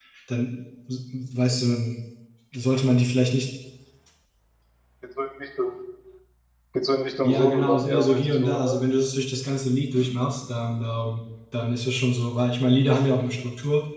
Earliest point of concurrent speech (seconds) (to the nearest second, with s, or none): 7 s